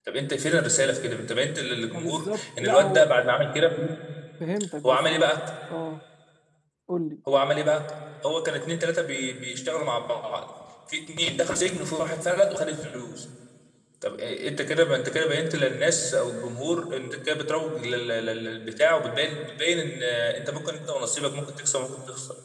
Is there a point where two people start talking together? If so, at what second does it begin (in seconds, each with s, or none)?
1.9 s